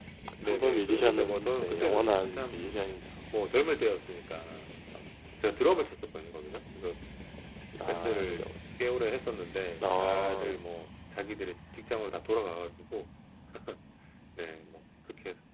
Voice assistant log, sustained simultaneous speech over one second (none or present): present